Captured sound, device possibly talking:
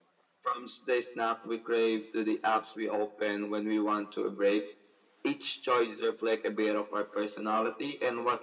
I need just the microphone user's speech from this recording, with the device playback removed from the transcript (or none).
none